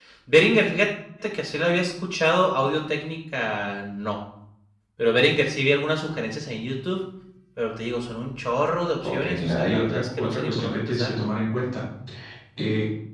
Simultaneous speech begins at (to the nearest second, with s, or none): 9 s